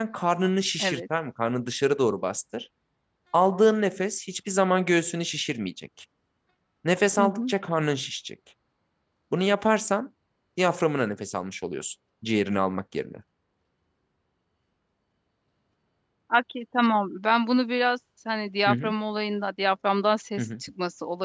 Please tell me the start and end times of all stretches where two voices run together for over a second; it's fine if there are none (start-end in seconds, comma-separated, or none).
none